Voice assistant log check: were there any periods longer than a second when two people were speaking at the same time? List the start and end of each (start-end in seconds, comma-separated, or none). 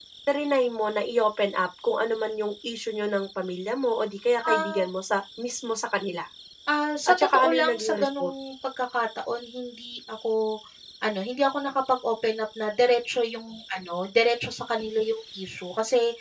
7.1-8.3